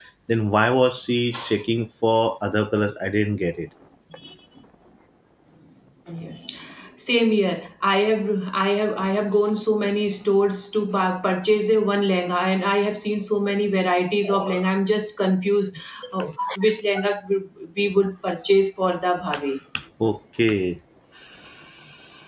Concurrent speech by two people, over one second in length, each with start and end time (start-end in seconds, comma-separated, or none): none